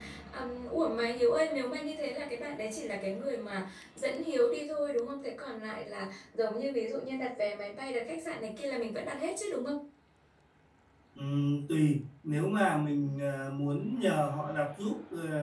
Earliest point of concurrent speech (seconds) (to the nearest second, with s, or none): none